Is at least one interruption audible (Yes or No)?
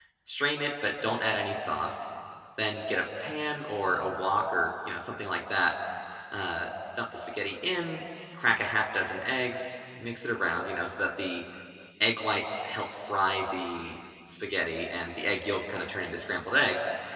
No